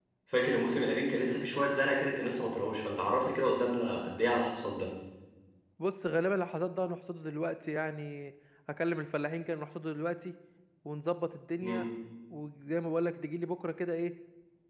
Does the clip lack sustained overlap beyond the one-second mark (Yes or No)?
Yes